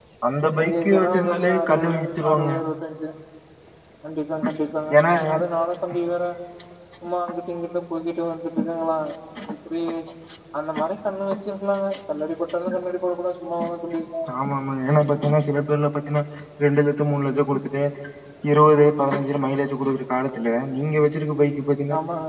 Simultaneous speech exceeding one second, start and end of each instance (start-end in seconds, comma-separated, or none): 0.6-2.5